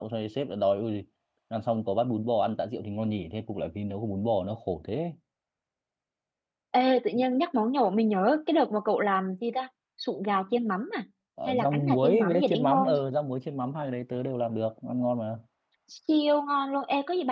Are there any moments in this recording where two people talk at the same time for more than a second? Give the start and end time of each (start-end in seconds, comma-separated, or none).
11.4-12.9